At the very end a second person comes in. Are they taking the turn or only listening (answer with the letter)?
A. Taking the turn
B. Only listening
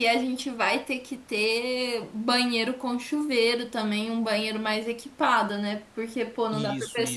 B